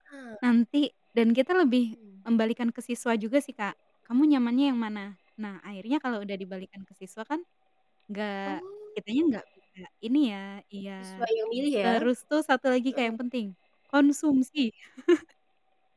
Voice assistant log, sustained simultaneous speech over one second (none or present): none